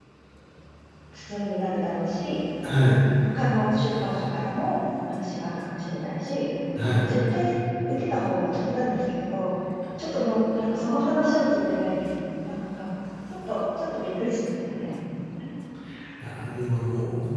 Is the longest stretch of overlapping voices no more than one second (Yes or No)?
Yes